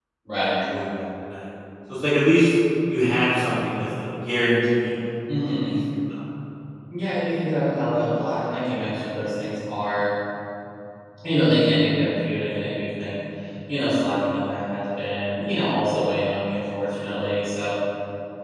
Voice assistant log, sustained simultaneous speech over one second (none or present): none